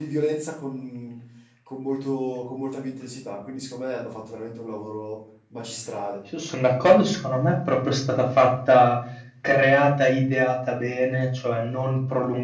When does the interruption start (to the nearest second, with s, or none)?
none